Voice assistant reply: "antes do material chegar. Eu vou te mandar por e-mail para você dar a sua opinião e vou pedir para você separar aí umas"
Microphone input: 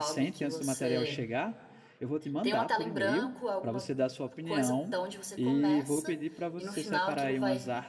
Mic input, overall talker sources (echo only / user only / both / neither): both